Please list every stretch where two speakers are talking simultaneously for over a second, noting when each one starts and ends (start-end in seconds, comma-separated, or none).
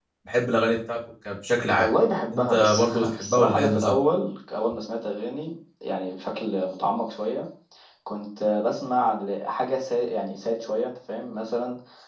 2.3-3.9